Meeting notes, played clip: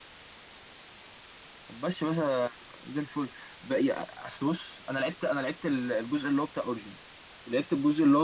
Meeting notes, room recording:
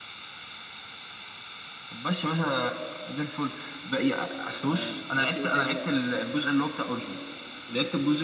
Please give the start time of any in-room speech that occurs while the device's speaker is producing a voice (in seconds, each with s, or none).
4.6 s